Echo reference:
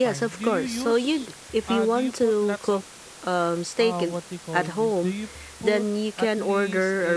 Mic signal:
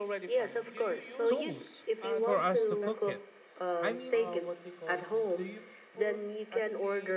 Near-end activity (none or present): present